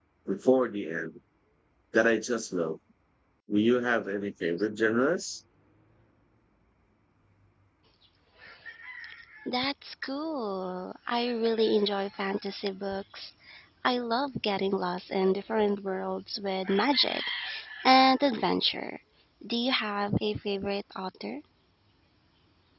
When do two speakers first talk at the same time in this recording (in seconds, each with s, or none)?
none